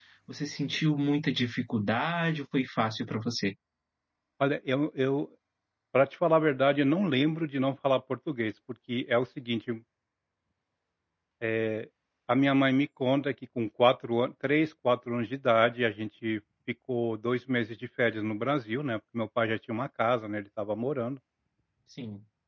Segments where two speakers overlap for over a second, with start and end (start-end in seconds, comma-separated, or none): none